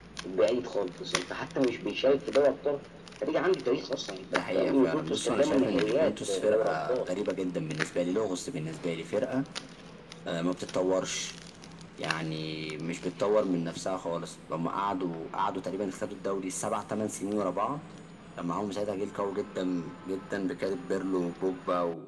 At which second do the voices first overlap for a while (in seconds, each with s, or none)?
4.3 s